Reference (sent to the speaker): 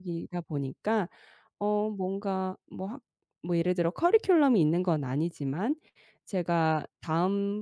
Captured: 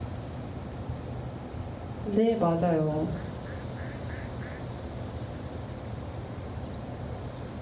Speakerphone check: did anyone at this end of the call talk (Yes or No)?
Yes